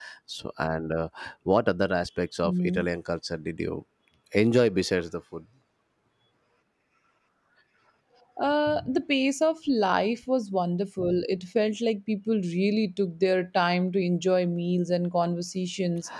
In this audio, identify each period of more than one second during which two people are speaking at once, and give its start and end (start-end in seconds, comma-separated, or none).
none